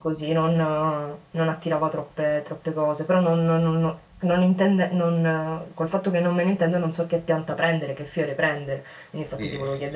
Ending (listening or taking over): listening